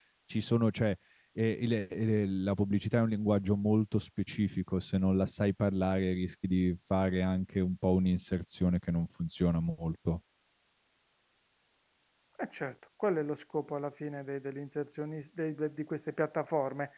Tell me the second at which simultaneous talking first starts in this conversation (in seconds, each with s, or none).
none